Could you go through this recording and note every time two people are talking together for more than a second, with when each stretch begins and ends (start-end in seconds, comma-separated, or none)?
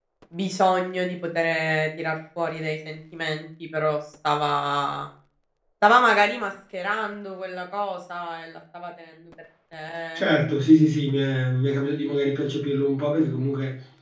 none